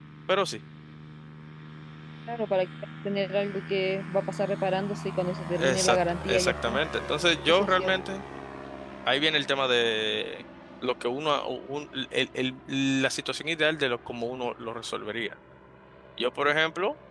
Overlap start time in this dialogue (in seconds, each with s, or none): 5.6 s